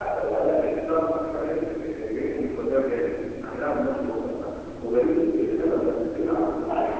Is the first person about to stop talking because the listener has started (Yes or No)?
Yes